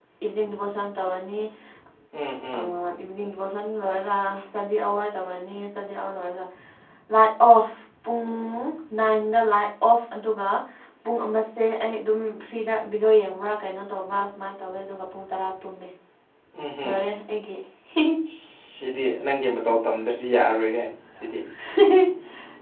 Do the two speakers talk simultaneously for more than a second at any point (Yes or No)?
No